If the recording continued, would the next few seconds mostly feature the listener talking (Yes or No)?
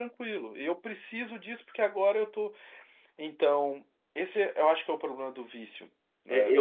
Yes